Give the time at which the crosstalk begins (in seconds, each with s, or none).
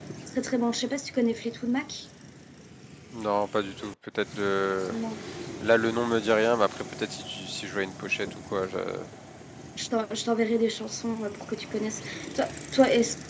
none